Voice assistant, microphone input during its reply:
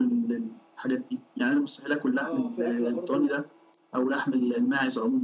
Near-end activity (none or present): present